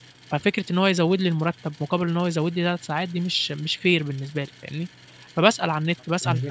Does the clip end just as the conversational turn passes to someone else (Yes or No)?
No